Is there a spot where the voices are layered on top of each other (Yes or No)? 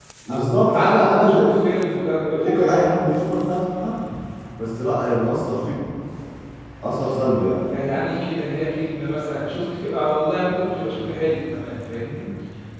Yes